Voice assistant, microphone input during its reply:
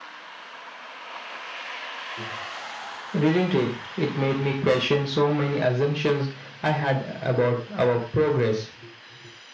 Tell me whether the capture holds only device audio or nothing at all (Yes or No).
Yes